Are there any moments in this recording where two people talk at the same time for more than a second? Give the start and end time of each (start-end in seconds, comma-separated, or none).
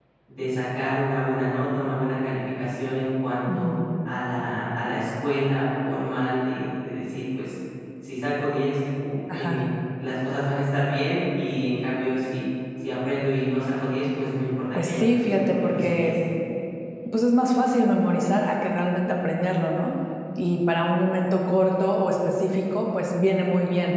14.8-16.1